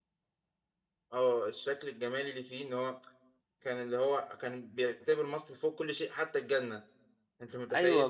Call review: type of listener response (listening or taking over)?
taking over